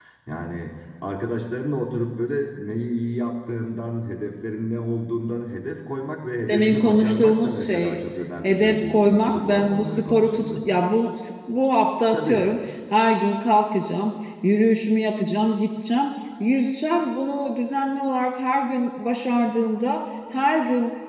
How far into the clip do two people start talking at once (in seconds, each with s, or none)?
6.5 s